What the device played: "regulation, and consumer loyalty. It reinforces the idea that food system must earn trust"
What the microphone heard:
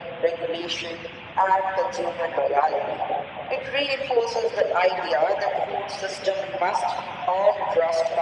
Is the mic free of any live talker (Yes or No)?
Yes